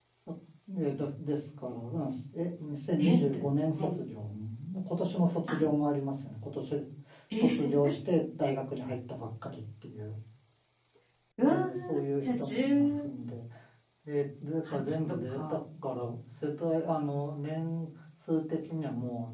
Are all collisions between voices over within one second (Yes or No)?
No